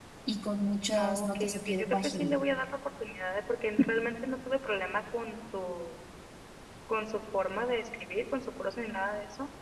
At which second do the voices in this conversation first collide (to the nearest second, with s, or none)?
1 s